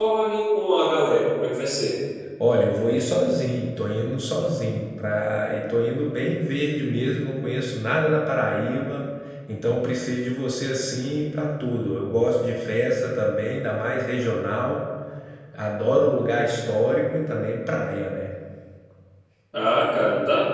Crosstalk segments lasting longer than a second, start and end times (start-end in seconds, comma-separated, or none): none